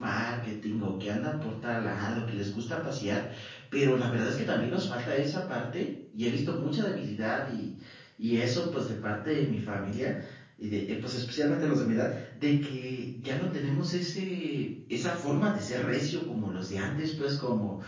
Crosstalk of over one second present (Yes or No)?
No